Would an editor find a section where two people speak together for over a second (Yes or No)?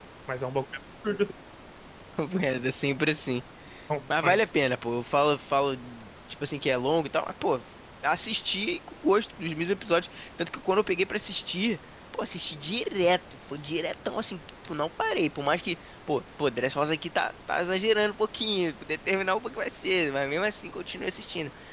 No